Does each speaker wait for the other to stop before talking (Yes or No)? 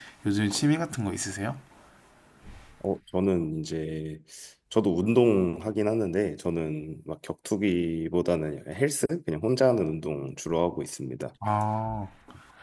Yes